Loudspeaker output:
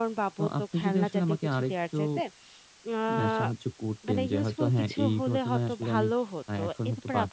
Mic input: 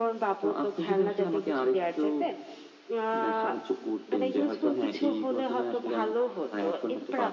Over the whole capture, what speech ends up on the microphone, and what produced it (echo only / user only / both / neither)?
echo only